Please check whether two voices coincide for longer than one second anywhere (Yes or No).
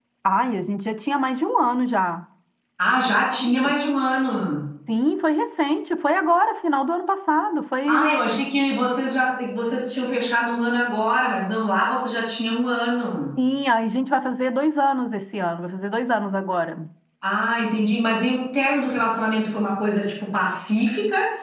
No